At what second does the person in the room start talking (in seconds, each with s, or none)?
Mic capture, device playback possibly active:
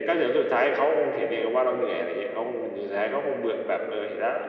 none